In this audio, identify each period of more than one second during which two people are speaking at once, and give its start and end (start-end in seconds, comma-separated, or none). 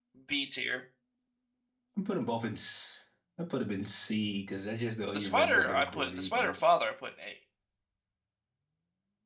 5.0-6.6